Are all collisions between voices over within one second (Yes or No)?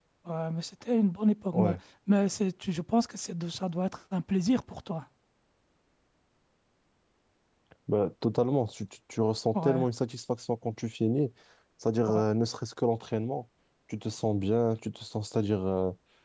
Yes